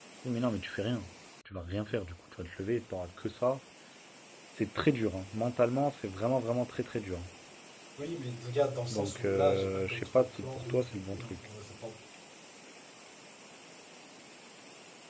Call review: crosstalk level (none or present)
present